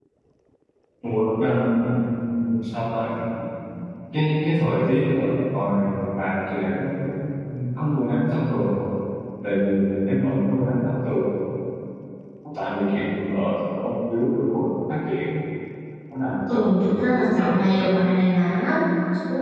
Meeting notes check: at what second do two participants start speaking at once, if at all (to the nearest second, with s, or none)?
16 s